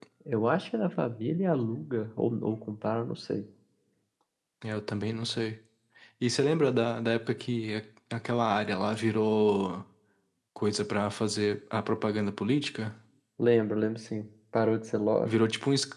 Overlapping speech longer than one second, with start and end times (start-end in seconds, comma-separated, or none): none